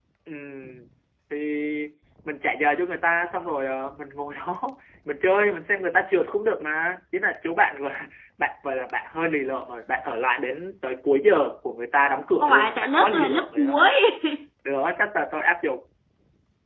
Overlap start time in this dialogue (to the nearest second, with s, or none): 12 s